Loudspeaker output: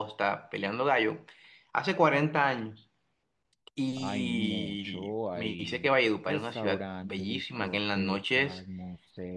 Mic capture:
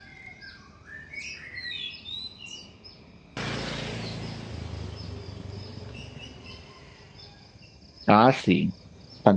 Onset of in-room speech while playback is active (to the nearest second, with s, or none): 8 s